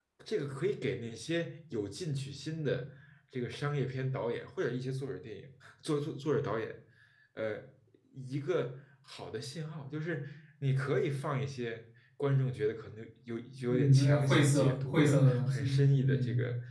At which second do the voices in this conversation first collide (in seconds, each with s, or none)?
13.7 s